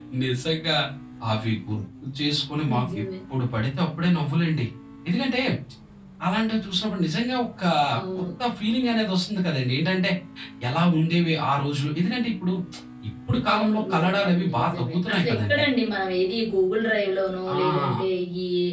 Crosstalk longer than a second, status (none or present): present